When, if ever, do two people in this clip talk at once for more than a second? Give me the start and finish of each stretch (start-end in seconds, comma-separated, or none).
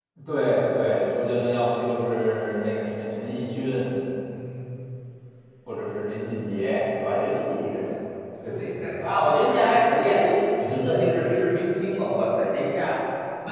8.4-9.8